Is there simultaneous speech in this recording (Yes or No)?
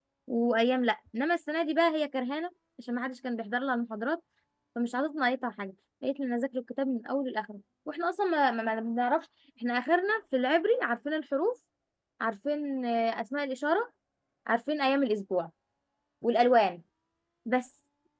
No